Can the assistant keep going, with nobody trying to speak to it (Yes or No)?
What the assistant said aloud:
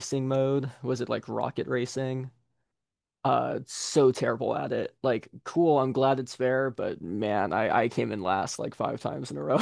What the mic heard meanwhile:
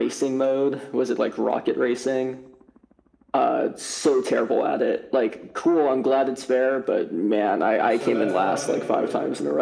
No